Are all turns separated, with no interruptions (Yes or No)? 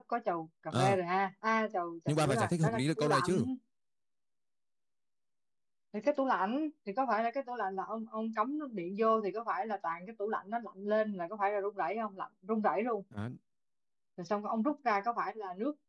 No